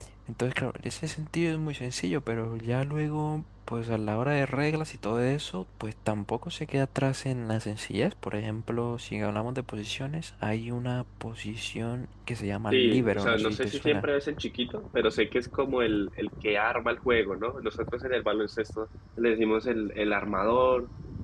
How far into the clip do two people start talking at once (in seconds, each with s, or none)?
12.7 s